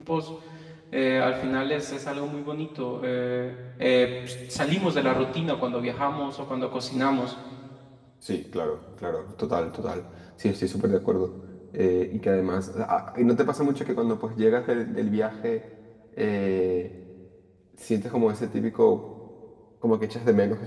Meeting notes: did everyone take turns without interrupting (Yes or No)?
Yes